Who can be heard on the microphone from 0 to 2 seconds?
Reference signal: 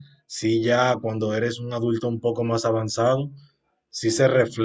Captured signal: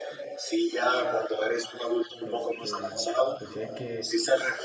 echo only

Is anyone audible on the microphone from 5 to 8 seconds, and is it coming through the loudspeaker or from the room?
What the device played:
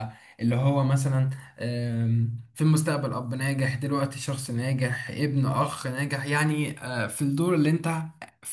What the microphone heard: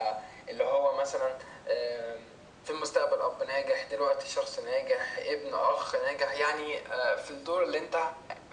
echo only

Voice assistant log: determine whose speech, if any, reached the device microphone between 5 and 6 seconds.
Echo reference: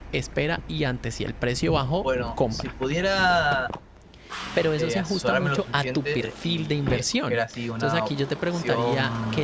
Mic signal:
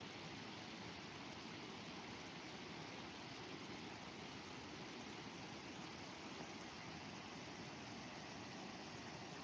neither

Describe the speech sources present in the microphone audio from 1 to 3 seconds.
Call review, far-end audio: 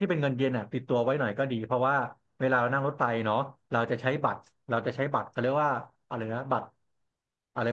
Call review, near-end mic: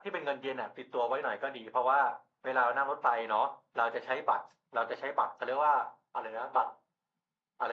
echo only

